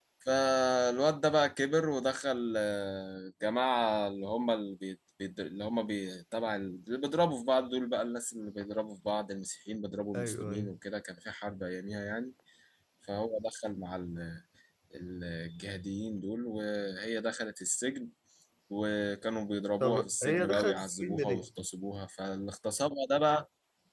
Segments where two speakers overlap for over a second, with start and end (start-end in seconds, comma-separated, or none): 19.8-21.5